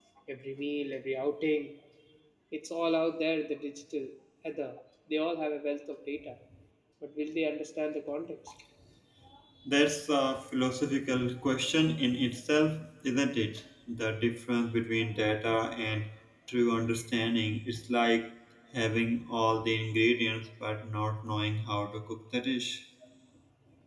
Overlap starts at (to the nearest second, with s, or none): none